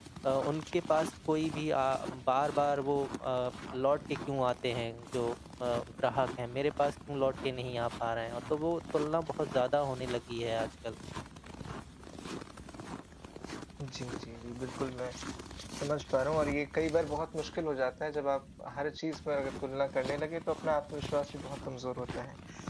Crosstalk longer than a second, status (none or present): none